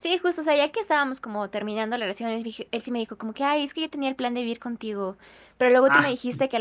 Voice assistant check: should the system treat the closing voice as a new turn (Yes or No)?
No